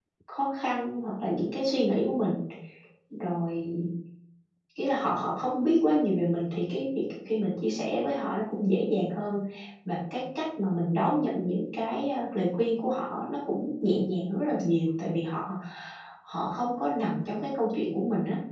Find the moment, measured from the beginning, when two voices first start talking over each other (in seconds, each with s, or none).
none